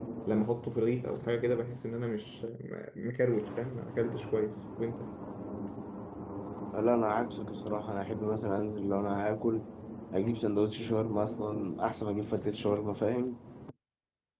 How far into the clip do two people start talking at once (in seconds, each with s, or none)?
none